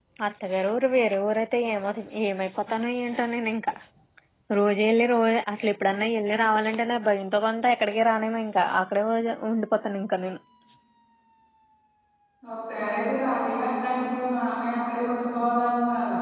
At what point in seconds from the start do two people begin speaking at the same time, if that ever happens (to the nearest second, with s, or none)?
none